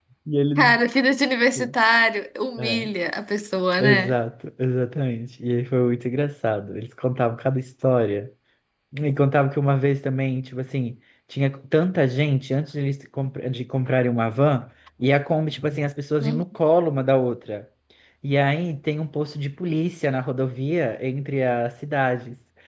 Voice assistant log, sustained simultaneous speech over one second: none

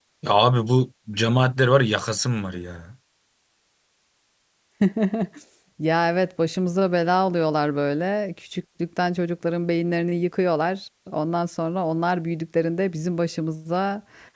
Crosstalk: none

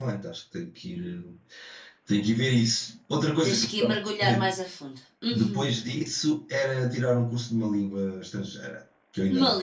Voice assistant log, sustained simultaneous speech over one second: none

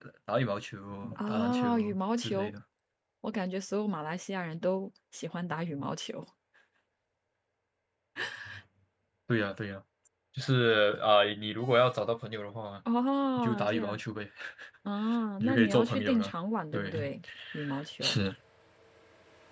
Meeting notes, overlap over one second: present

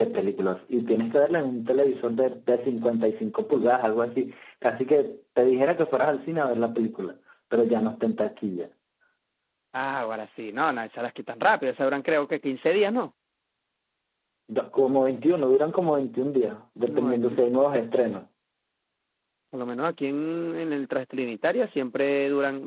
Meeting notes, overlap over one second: none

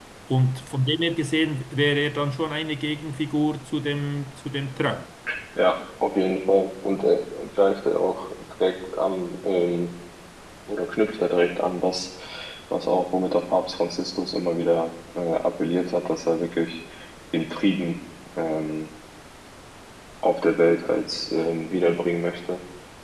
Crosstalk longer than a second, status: none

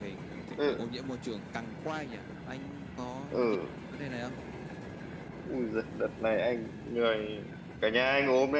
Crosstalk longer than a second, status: none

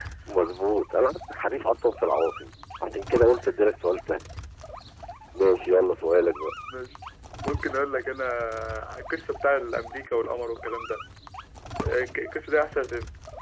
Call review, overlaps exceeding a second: none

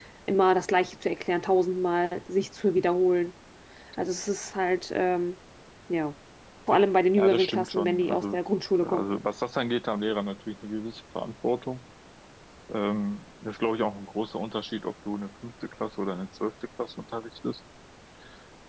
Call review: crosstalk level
present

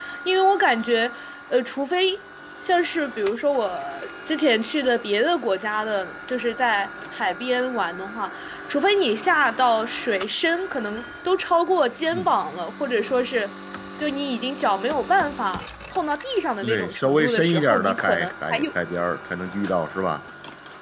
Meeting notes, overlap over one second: present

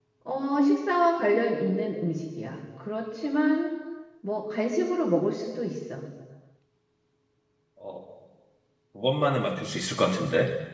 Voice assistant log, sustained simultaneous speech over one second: none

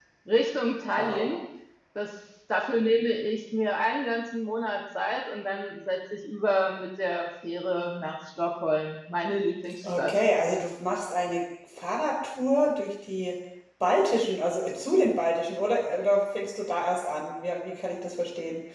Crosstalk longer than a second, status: none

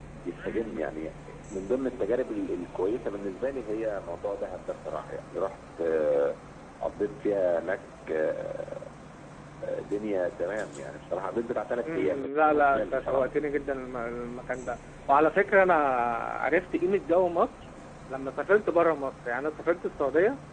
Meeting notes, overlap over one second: present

